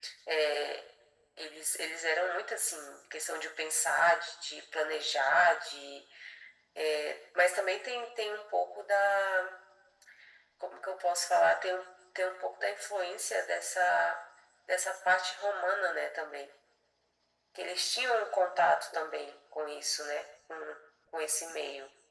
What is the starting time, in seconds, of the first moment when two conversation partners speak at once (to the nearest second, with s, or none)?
none